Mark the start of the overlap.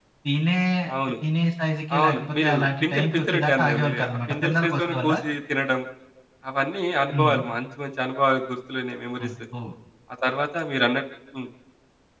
2 s

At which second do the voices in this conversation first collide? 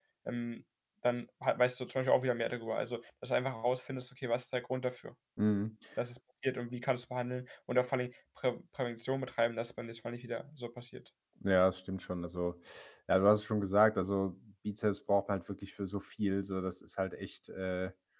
none

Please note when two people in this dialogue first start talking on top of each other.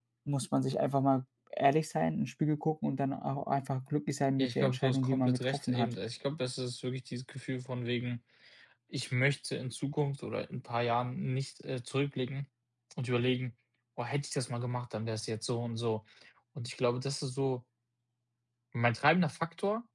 4 s

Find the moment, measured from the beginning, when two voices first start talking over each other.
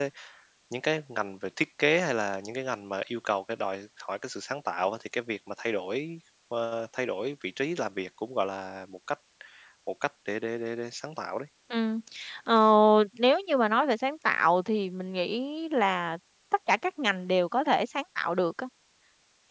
none

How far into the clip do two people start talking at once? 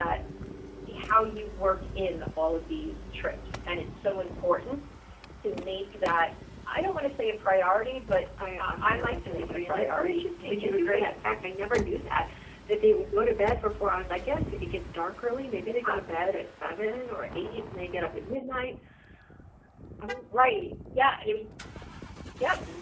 9 s

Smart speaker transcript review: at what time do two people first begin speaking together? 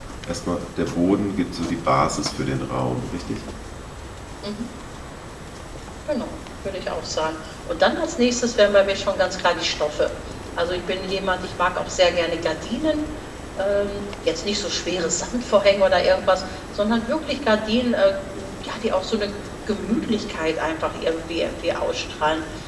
none

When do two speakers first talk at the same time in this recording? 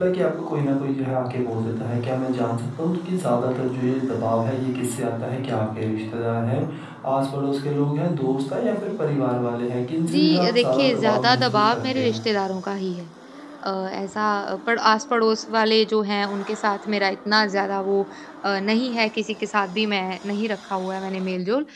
10 s

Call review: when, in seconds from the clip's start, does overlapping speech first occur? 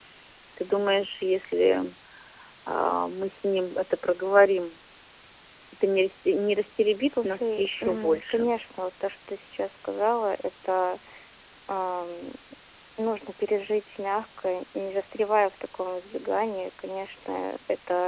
7 s

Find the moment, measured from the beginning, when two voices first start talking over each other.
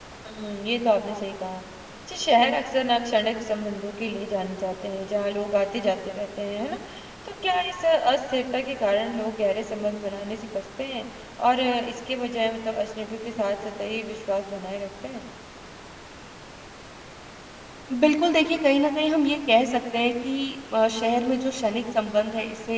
none

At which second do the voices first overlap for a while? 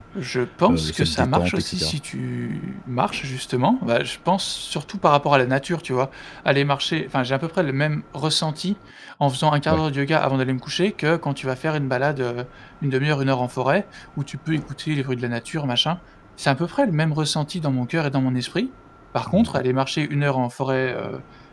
1 s

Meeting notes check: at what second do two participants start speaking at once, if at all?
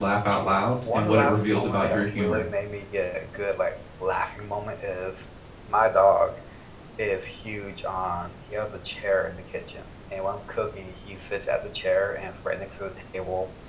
1 s

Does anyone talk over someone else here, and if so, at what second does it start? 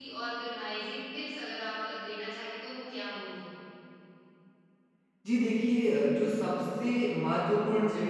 none

